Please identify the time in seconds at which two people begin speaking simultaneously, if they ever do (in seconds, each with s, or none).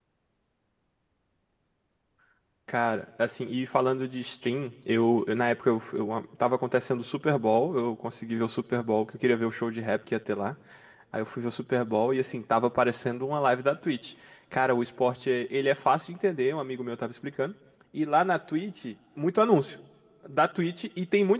none